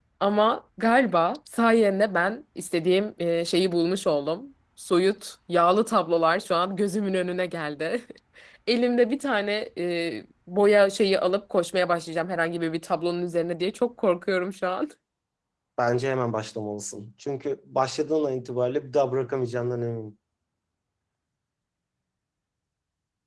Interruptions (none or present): none